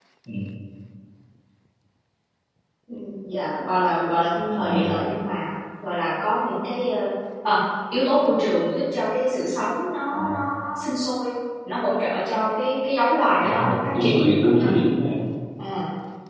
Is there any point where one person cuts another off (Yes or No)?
Yes